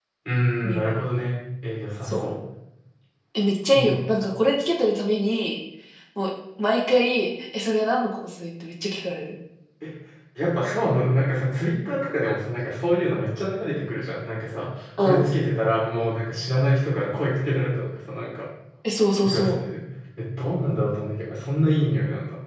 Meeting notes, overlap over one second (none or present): none